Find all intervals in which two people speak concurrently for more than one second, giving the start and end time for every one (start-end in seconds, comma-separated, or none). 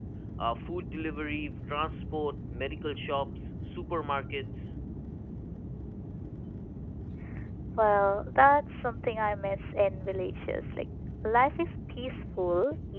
none